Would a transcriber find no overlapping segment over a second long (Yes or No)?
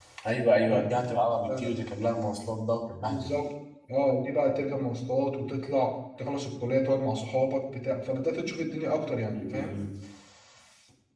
Yes